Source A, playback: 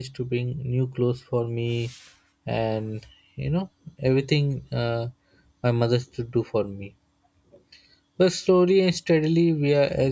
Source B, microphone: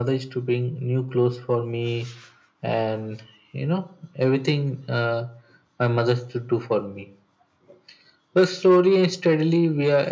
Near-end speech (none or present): none